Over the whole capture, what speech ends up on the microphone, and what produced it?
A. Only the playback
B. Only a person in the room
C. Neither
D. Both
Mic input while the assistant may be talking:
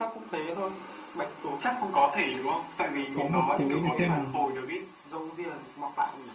D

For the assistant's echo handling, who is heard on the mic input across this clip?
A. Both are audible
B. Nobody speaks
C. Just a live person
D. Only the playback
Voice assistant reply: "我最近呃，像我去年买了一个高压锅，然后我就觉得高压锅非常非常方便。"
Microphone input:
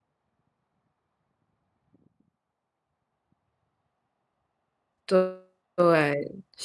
C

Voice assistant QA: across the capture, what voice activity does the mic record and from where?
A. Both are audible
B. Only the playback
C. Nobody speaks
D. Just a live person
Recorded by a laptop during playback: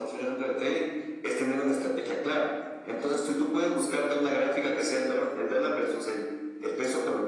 B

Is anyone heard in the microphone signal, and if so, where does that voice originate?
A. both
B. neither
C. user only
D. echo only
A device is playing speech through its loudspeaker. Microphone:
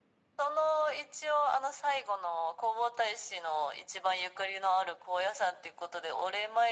D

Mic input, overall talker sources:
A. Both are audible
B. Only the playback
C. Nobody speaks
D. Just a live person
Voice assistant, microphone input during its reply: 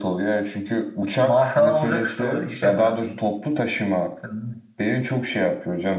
B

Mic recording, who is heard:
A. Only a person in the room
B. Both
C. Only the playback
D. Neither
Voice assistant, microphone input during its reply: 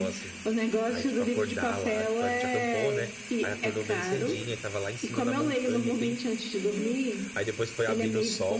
B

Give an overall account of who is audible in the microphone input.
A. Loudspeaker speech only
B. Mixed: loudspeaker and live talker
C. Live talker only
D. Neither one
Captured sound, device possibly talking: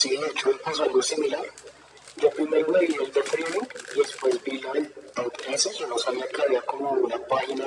A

